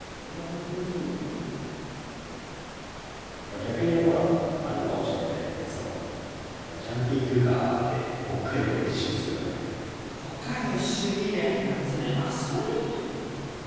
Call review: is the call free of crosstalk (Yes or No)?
Yes